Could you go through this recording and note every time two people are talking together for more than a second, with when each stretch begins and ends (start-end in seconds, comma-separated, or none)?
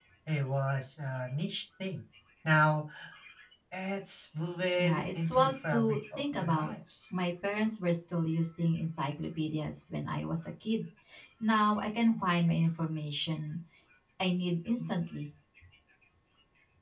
4.8-6.7